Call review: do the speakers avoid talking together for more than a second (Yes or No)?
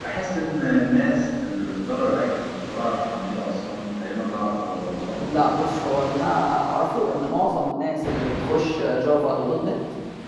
Yes